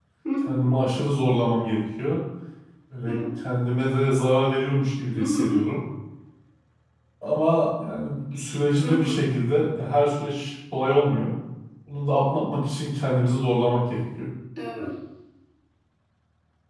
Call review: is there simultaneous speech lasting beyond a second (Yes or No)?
No